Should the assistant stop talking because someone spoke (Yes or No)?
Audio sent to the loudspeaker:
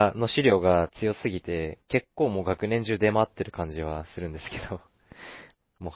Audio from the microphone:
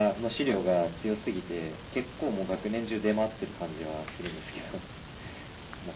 No